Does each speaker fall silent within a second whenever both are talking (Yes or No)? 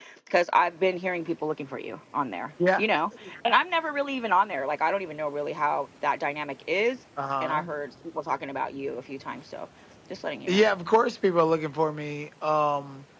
Yes